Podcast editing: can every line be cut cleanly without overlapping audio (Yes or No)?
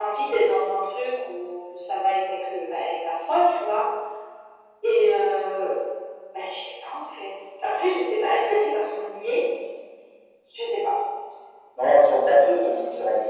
Yes